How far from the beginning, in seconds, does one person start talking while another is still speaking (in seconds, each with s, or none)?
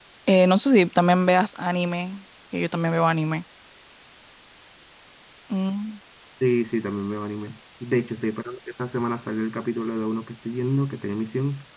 none